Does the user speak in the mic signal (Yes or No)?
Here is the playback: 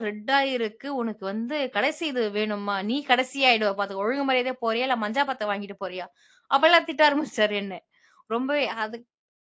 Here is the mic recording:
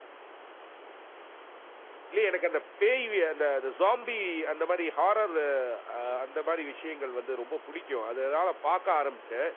Yes